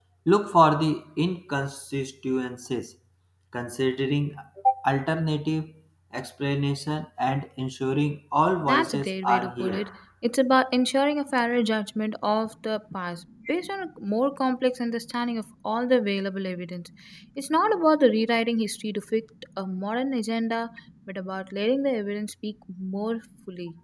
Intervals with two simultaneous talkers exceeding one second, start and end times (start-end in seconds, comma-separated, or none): 8.6-9.8